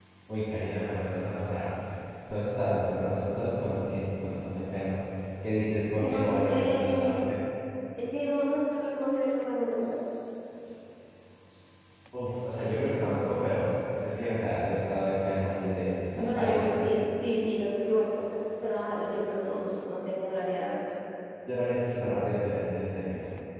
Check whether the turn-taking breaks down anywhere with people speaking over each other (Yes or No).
Yes